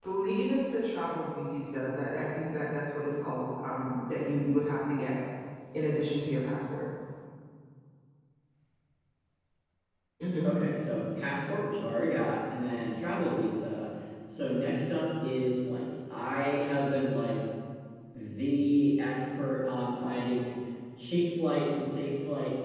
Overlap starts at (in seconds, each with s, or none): none